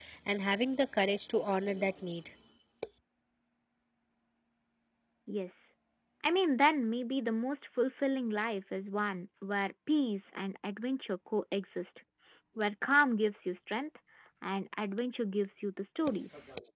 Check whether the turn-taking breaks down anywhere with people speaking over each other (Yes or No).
No